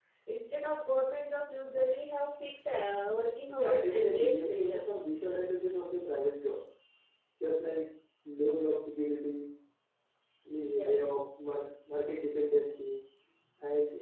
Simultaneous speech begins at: 3.5 s

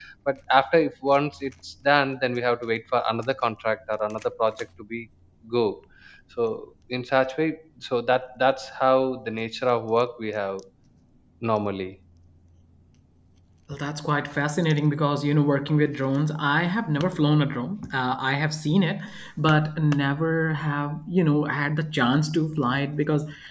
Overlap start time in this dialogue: none

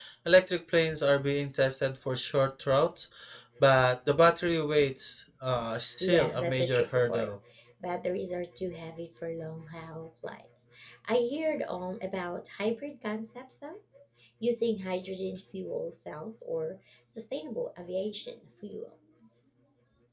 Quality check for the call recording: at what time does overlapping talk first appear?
6.0 s

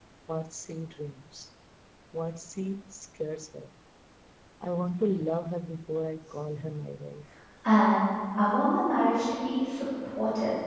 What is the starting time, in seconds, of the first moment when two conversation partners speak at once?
none

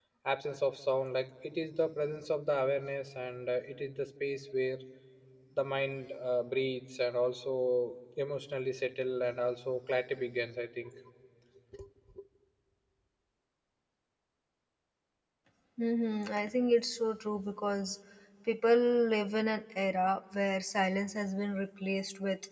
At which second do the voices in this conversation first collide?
none

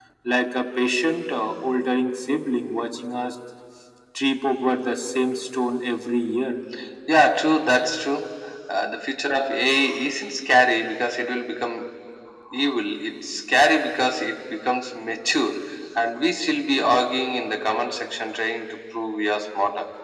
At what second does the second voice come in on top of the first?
none

